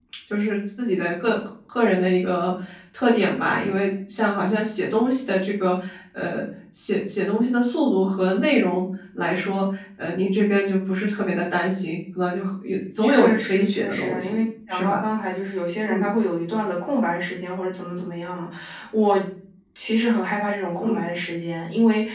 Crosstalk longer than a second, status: present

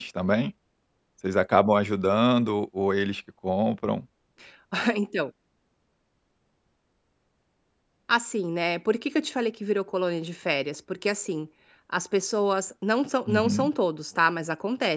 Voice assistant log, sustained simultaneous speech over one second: none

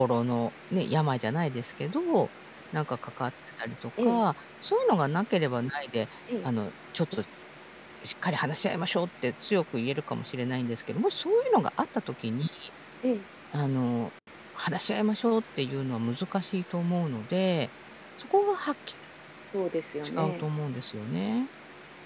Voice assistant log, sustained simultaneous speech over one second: none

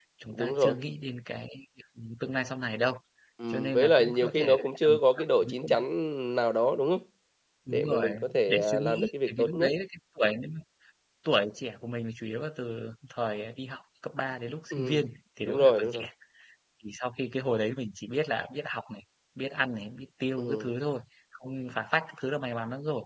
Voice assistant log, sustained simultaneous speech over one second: present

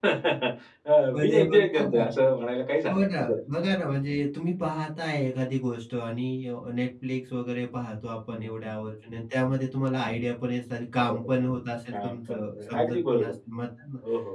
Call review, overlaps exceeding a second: present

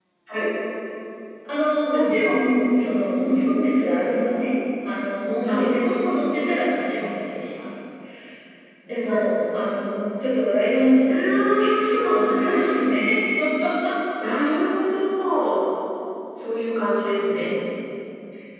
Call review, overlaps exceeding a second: present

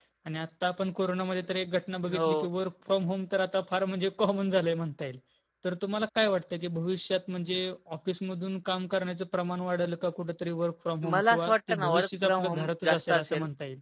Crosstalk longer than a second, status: present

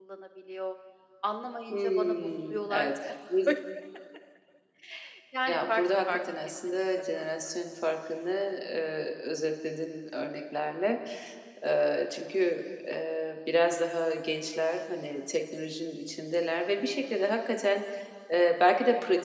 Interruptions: present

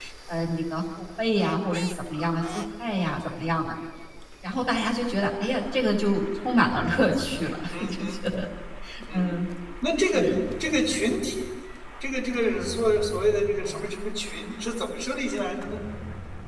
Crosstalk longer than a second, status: none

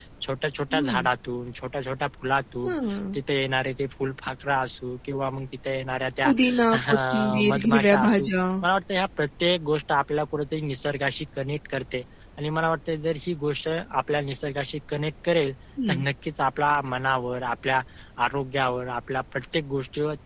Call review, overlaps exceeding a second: present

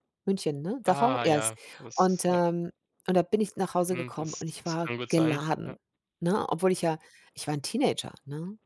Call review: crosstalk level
present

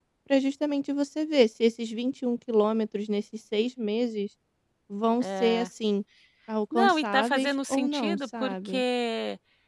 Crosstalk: present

